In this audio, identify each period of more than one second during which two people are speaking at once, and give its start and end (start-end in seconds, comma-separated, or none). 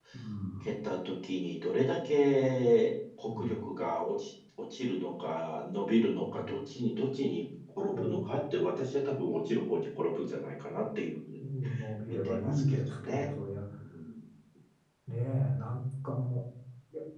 12.1-13.3